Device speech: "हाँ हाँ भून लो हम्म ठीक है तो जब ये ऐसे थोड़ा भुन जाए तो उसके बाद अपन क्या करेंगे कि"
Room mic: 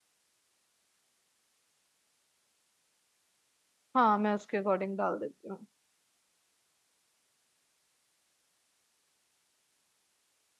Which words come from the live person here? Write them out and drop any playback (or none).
हाँ मैं उसके अकॉर्डिंग डाल देती हूँ